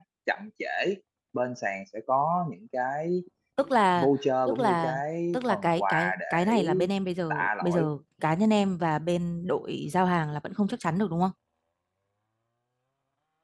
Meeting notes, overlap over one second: present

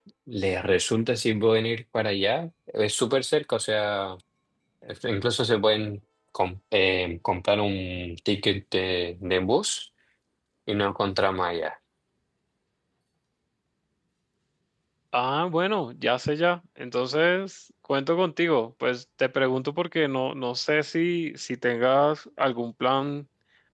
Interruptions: none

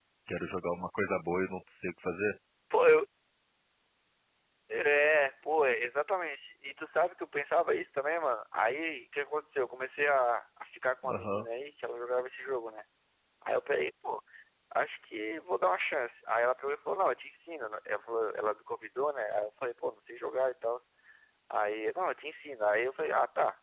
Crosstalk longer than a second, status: none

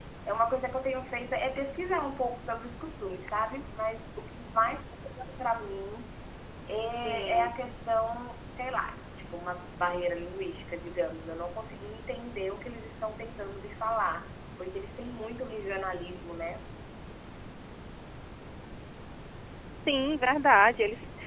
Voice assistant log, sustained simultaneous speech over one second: none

